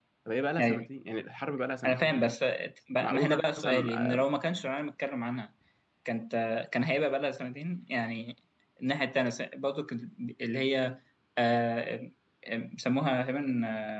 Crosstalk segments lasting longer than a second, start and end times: 3.0-4.2

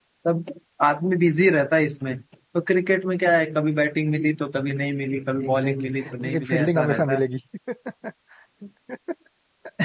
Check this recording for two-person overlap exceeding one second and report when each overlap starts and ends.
5.5-7.2

